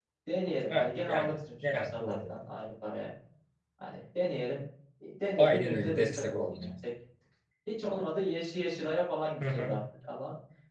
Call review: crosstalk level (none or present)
present